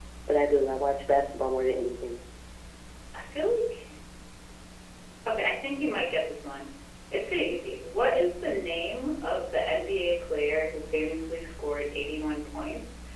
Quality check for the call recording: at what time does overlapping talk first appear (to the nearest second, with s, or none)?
none